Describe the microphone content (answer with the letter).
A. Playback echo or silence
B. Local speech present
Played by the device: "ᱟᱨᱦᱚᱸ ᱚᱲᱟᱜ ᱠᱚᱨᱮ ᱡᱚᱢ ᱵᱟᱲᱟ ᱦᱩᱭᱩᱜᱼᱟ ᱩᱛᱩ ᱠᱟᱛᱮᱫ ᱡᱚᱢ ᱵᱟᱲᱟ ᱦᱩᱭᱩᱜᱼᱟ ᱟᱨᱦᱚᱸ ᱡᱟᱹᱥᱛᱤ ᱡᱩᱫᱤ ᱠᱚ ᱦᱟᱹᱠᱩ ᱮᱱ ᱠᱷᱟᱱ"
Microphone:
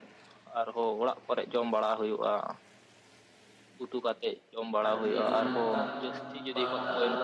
B